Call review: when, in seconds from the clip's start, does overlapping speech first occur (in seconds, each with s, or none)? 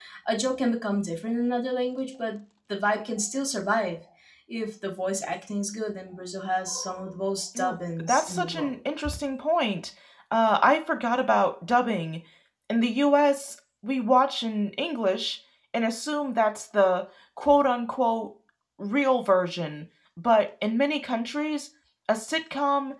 7.5 s